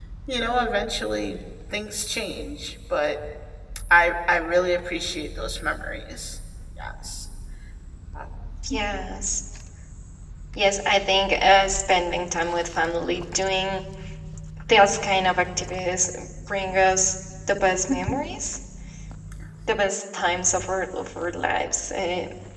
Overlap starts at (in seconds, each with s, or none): none